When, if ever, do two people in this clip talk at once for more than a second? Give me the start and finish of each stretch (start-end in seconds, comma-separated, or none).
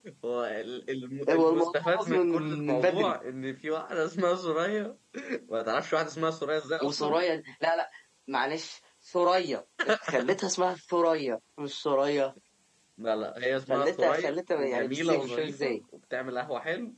1.3-3.1, 13.7-15.8